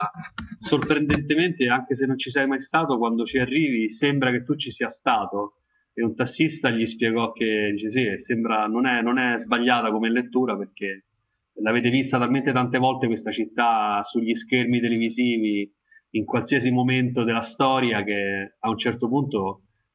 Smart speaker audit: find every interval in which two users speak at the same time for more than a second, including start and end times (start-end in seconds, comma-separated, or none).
none